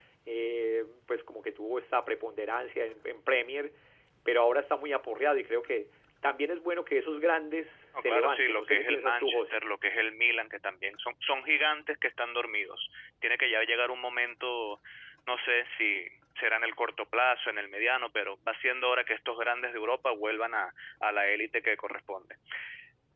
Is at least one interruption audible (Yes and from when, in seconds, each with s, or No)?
Yes, from 7.9 s